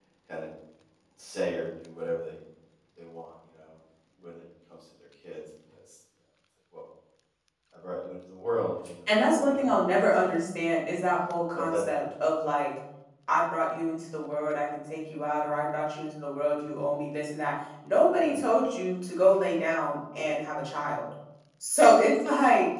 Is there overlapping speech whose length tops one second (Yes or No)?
Yes